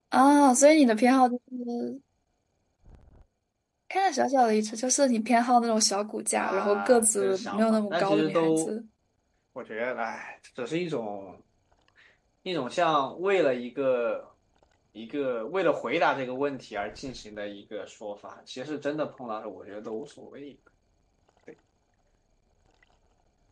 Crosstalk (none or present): present